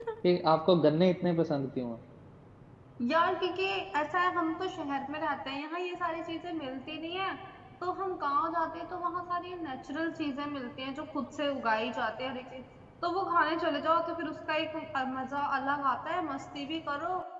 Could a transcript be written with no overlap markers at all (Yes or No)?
Yes